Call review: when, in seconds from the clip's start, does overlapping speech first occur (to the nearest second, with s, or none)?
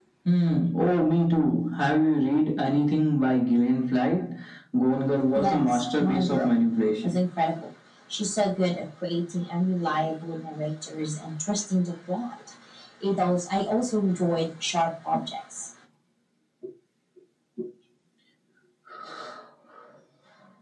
5 s